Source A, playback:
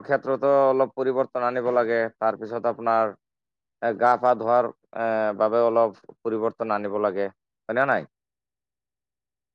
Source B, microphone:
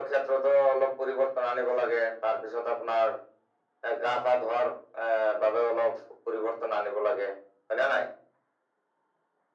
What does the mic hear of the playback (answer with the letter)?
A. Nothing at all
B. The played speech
B